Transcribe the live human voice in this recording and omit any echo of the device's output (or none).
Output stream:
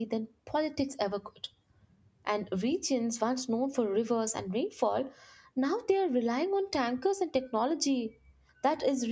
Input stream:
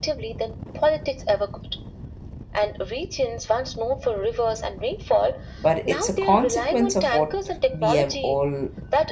but it's a consequence of what we have all